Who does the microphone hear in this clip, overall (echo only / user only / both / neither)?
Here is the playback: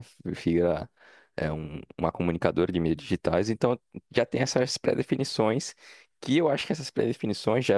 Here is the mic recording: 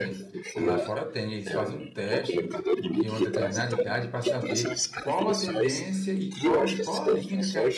both